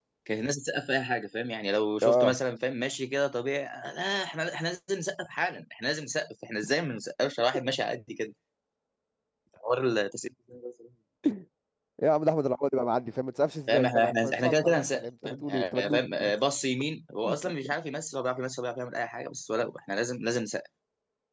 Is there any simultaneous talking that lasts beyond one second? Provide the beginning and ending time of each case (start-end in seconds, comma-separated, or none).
13.7-16.1